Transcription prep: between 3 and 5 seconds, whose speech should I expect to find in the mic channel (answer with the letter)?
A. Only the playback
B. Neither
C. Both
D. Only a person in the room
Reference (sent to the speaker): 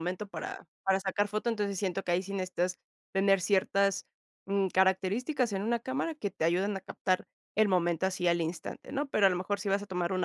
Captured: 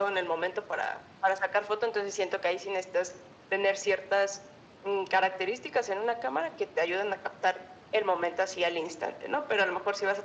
A